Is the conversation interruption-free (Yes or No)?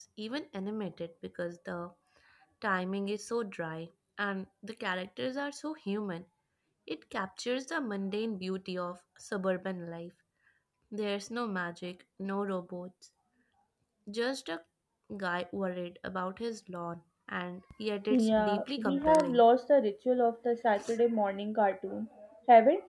No